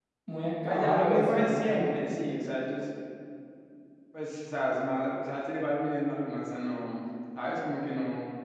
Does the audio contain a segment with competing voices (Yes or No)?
Yes